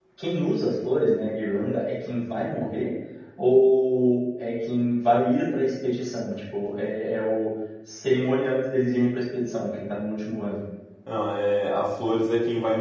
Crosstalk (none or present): none